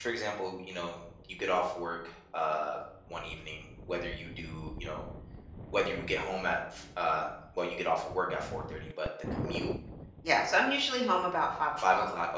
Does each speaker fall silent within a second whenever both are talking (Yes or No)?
Yes